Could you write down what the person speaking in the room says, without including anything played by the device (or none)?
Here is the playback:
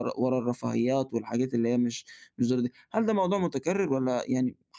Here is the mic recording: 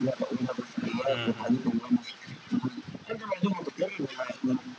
اهم.